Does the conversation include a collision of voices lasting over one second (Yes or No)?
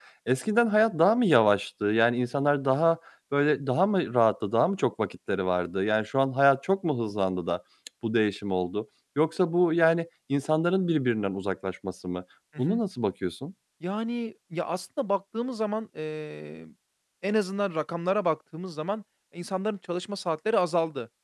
No